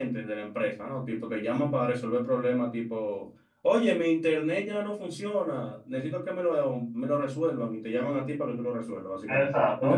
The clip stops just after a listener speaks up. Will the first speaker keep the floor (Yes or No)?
No